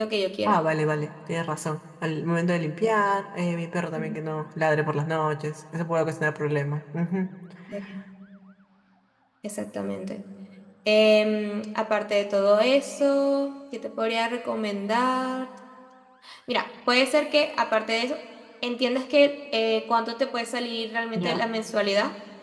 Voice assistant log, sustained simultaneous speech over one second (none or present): none